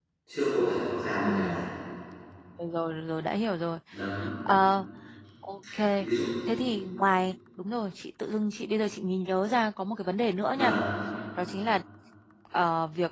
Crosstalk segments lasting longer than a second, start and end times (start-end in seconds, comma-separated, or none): none